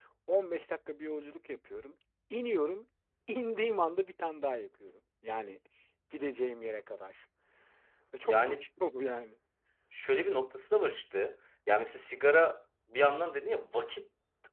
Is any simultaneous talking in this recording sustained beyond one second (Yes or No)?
No